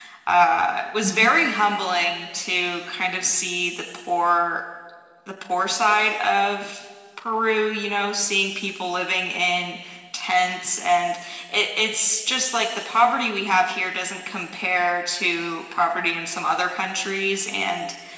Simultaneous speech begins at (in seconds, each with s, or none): none